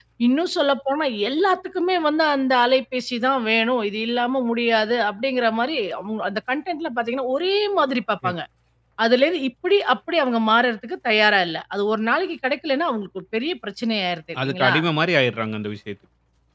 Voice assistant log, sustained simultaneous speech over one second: none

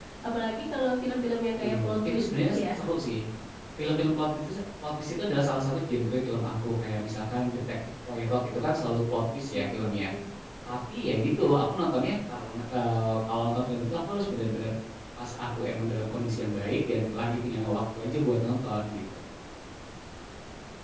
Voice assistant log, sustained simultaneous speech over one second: present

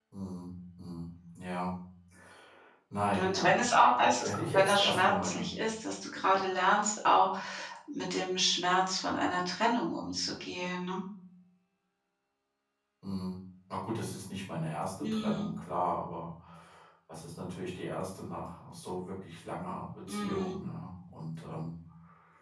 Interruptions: present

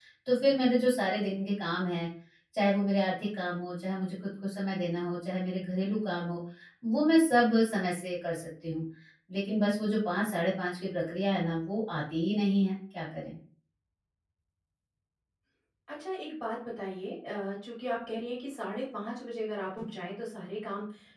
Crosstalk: none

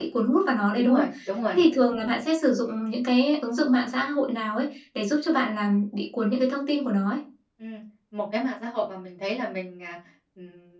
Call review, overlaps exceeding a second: none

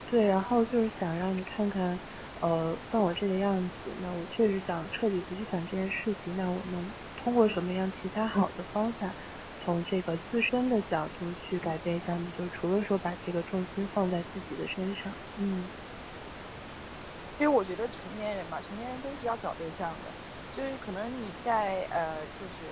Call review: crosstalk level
none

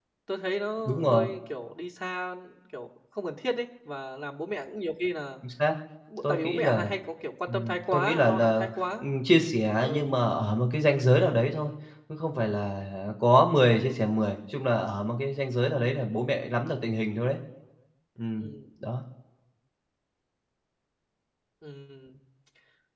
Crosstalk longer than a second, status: present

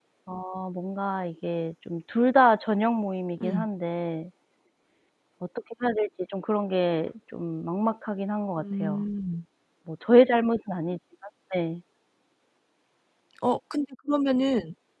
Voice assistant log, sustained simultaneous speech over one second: none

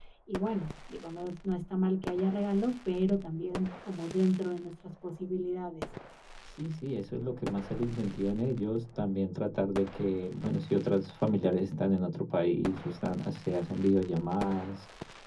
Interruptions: none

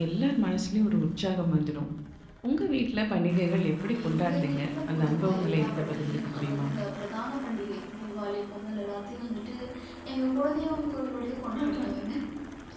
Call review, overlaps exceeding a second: present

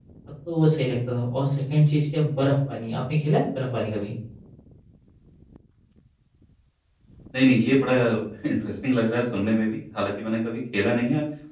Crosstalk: none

